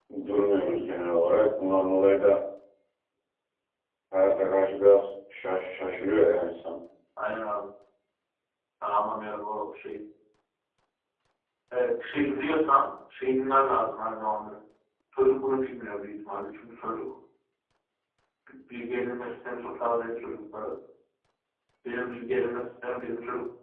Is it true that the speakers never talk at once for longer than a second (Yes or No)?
Yes